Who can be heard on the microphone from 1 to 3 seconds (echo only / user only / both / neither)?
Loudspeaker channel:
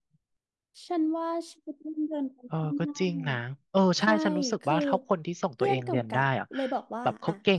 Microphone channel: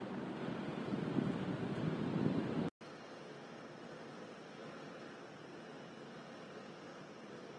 neither